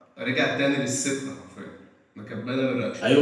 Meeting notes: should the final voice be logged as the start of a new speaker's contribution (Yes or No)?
Yes